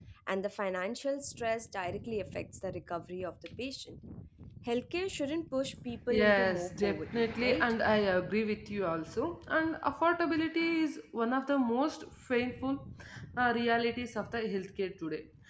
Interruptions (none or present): present